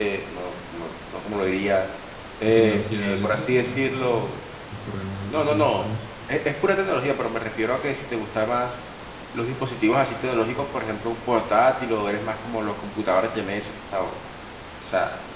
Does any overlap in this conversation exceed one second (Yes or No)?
Yes